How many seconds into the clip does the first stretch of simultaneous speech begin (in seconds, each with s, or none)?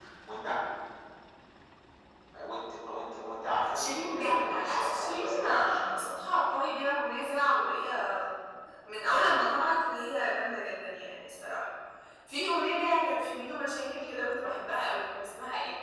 3.7 s